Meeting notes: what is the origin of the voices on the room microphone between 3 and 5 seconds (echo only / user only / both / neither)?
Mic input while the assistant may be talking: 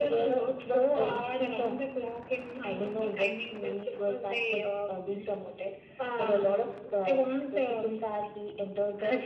echo only